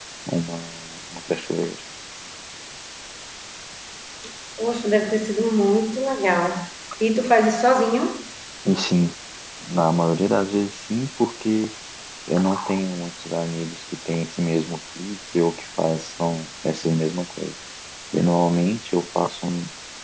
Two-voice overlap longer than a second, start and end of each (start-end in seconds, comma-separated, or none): none